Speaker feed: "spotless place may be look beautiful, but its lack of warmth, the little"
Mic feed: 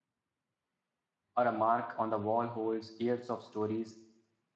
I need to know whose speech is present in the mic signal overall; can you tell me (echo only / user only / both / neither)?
user only